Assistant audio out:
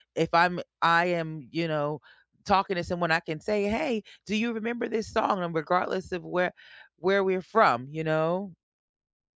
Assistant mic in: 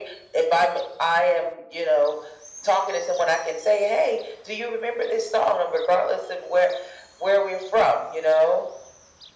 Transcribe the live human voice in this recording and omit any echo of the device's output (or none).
none